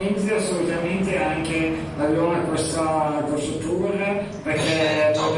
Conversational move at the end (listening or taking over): listening